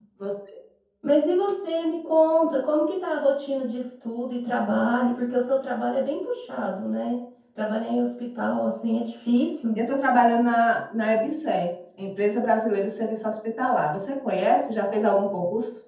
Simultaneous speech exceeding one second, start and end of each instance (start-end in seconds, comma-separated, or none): none